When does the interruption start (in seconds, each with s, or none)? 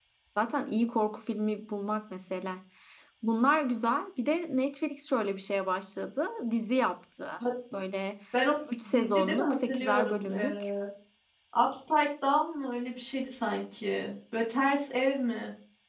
8.9 s